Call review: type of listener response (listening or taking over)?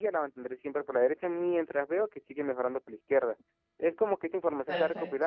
taking over